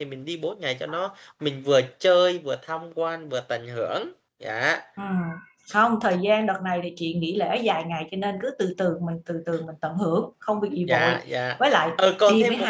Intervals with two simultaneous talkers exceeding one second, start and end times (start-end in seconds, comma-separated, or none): none